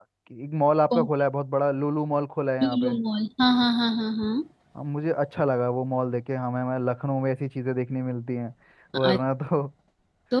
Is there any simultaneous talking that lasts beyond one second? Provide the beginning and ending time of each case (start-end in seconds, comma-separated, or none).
none